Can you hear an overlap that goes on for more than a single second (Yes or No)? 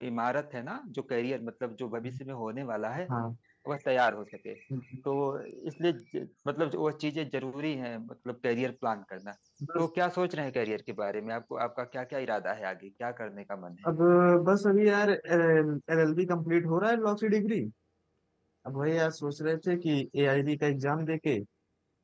No